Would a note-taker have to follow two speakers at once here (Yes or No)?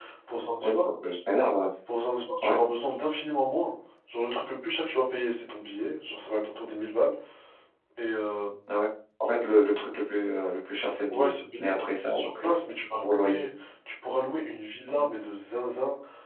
Yes